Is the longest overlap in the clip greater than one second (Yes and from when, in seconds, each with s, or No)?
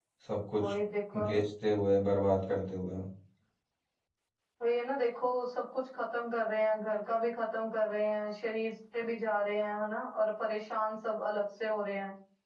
No